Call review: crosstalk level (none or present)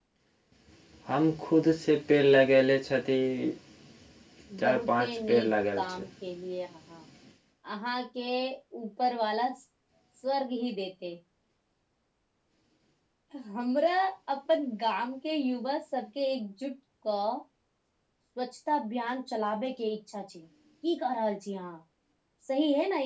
present